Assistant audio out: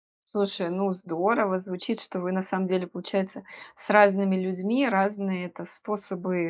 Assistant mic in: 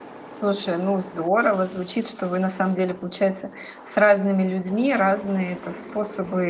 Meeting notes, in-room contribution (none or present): none